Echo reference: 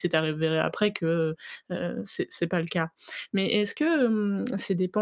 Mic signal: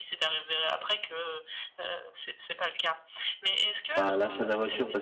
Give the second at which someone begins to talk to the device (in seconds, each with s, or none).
3.9 s